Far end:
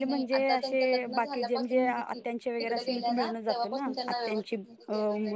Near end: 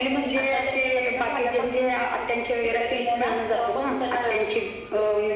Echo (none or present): present